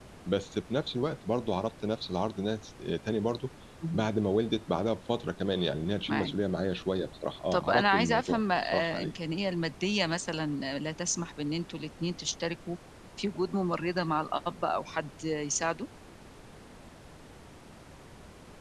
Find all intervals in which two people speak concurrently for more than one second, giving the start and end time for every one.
7.5-9.1

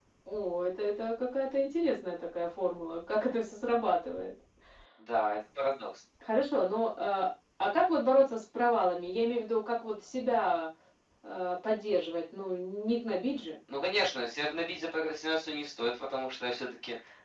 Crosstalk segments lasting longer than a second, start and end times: none

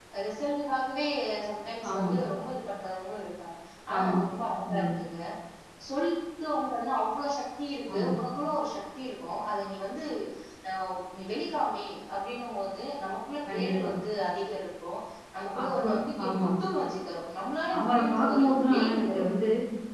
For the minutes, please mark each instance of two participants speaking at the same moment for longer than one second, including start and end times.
17.8-19.0

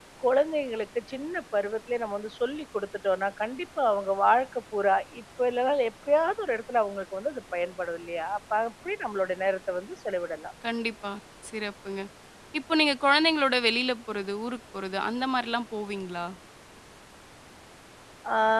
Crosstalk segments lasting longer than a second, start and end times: none

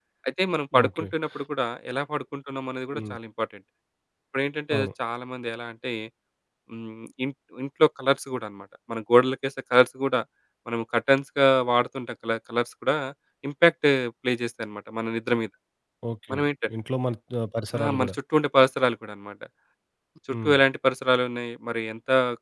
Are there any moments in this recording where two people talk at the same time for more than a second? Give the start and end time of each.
none

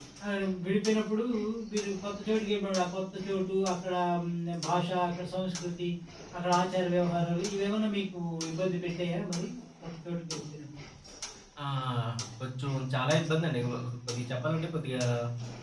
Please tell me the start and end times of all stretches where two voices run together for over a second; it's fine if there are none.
none

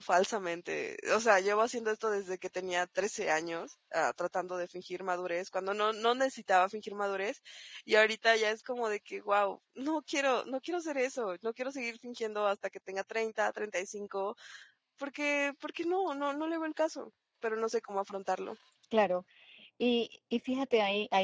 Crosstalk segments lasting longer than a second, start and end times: none

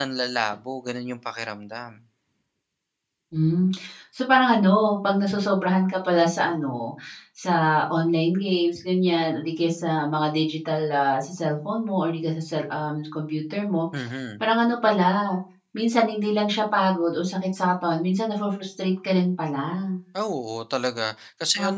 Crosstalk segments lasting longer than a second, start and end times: none

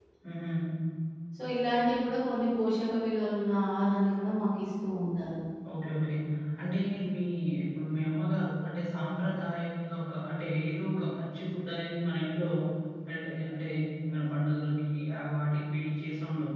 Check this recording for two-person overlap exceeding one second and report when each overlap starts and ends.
none

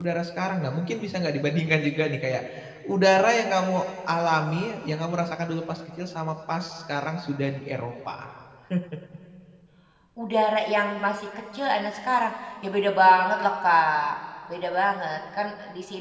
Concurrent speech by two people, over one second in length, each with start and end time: none

